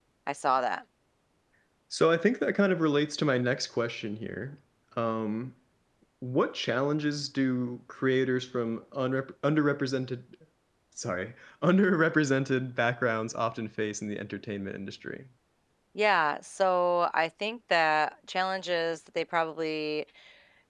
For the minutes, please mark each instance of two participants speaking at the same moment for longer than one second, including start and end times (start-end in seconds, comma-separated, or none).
none